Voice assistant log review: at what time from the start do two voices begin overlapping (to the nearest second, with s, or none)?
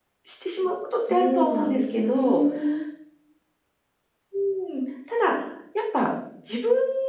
1 s